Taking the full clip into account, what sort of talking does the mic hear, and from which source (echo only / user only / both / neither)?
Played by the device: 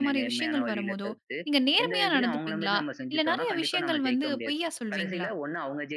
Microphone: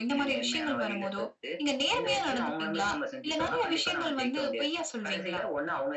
echo only